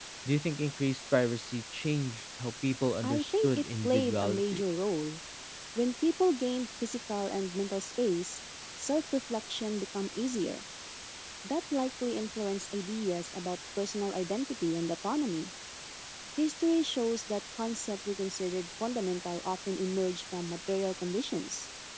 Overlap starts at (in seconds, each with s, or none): 3.0 s